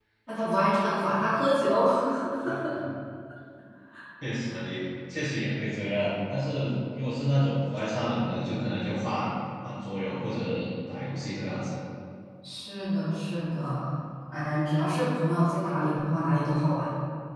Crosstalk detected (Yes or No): No